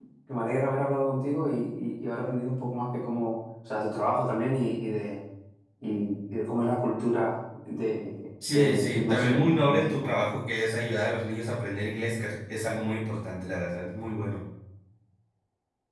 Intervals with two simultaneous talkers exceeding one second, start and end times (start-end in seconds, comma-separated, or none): 8.5-9.9